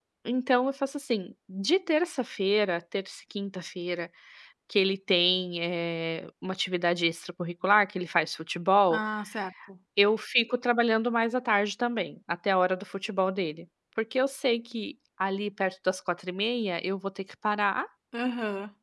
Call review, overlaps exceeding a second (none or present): none